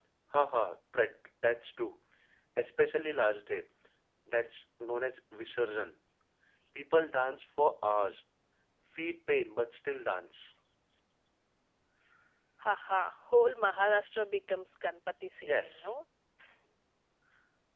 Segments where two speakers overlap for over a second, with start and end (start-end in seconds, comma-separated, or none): none